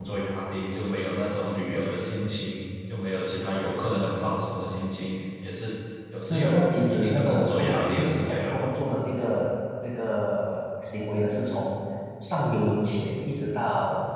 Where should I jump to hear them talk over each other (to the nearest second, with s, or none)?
6 s